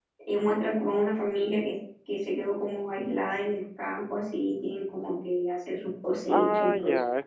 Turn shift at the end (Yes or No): Yes